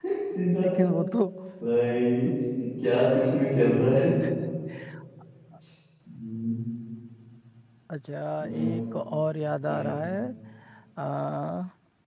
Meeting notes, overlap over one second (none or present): none